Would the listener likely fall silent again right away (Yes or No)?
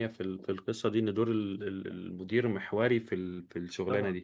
No